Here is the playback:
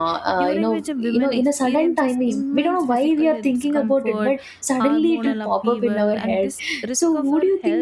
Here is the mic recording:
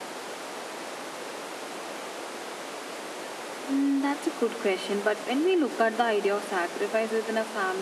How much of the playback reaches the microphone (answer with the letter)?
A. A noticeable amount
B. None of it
B